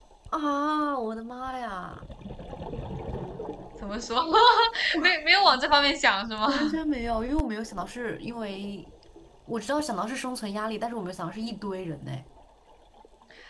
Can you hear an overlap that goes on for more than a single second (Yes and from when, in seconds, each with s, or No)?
No